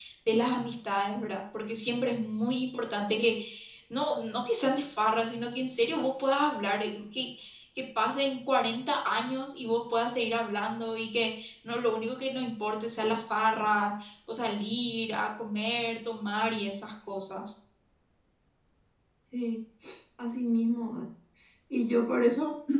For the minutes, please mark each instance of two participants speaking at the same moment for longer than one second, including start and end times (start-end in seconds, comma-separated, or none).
none